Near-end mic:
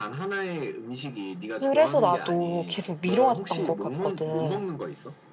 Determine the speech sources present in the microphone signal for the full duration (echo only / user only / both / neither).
both